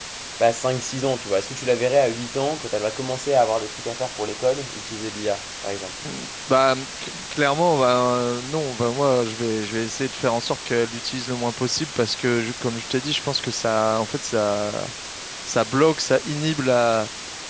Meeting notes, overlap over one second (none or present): none